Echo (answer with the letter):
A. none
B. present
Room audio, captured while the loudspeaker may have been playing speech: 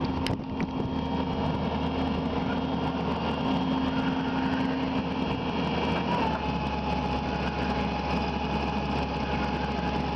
A